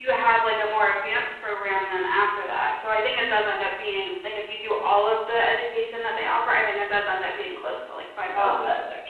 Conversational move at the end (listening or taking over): taking over